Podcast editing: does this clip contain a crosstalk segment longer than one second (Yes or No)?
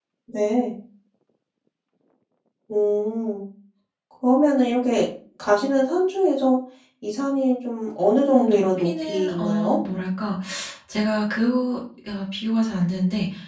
Yes